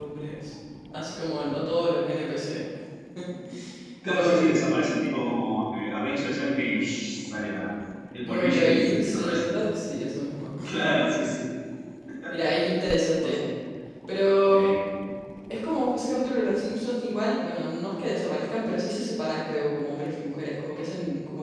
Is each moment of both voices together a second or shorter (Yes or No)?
No